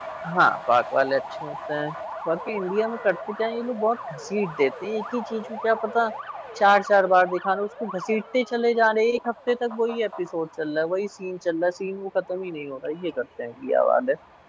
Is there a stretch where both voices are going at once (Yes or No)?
No